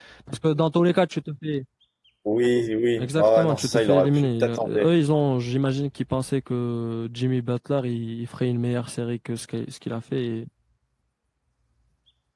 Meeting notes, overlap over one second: present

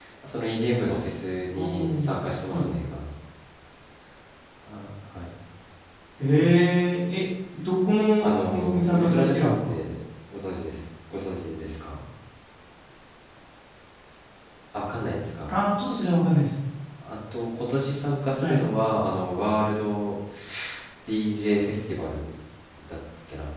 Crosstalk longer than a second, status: present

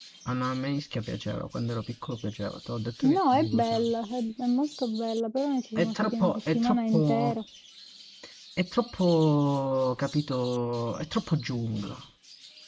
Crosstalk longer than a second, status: present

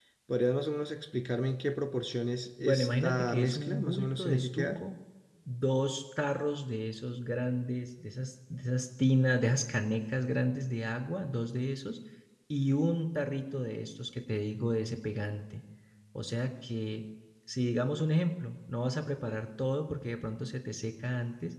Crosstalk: present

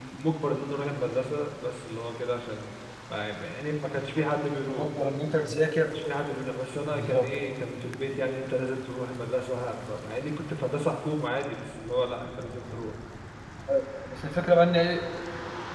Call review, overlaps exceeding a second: none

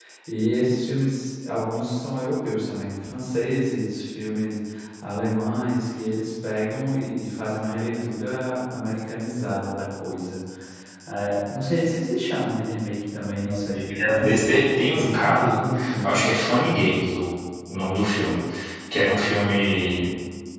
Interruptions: present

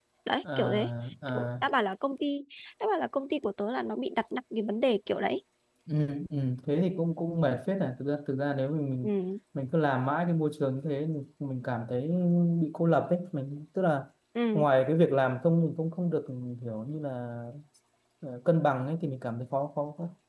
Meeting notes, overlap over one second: none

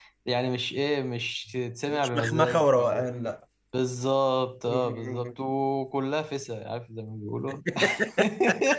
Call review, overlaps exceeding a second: present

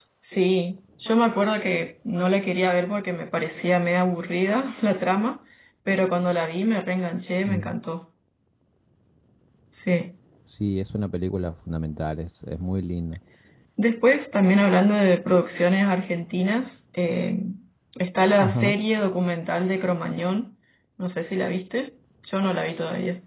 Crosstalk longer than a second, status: none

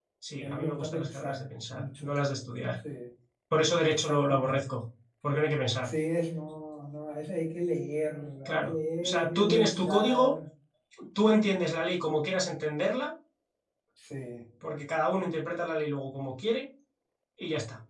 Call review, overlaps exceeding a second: present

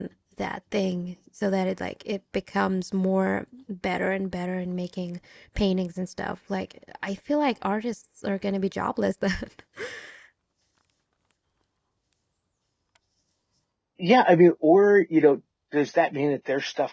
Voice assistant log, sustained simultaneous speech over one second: none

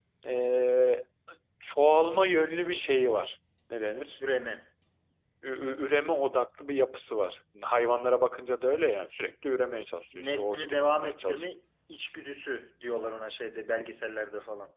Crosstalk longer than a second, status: present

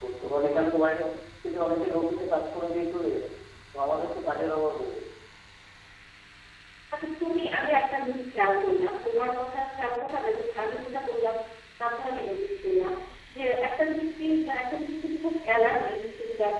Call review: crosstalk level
none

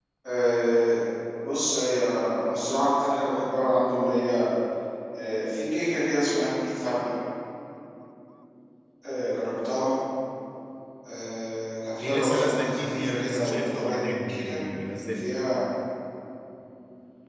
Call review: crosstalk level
present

